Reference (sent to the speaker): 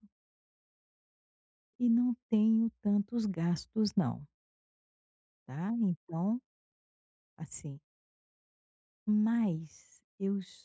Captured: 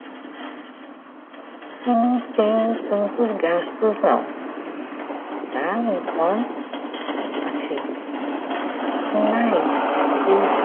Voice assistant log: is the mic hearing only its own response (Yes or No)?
Yes